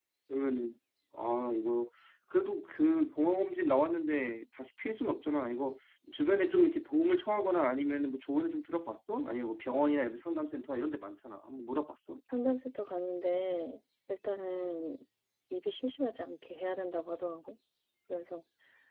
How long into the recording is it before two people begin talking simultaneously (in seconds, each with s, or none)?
none